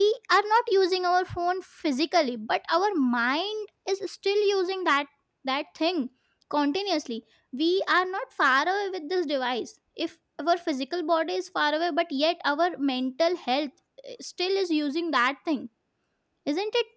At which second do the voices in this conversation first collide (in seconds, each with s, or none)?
none